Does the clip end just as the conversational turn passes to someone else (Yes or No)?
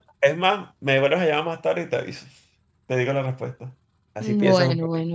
Yes